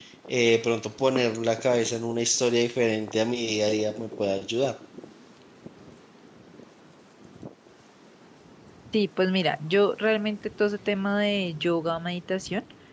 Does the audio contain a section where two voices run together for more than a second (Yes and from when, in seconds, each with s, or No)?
No